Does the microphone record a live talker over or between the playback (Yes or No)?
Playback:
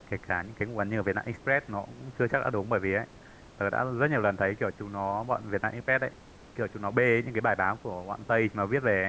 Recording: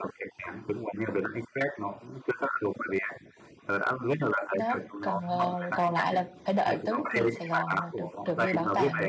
Yes